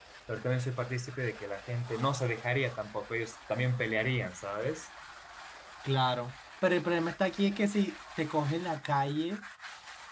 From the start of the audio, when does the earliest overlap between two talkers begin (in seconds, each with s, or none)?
none